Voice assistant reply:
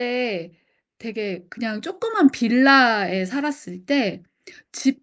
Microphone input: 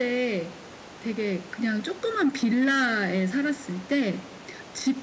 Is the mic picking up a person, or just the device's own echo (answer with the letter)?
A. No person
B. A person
A